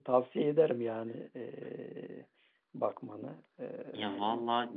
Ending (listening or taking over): taking over